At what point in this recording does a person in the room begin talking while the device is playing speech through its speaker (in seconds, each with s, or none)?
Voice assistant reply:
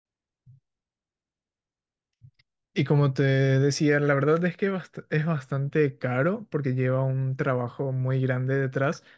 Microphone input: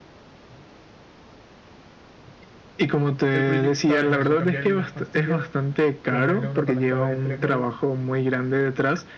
3.3 s